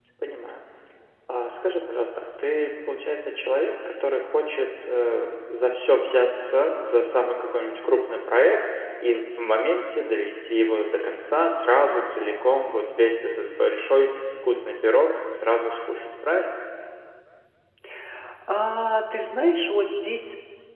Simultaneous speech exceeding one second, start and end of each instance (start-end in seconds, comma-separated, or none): none